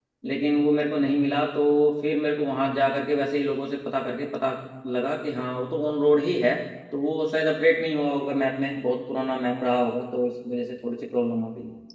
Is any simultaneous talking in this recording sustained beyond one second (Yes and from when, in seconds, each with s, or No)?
No